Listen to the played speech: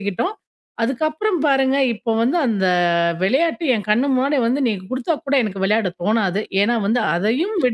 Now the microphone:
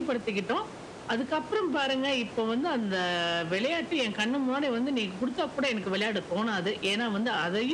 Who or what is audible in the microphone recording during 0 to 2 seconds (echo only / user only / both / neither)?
echo only